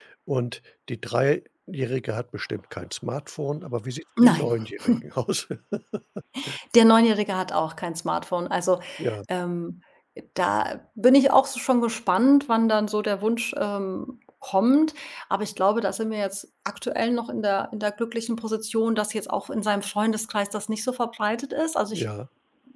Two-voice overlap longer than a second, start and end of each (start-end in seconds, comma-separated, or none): none